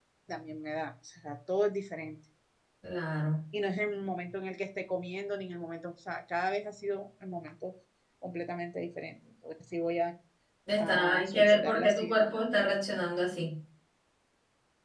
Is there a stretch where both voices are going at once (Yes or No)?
Yes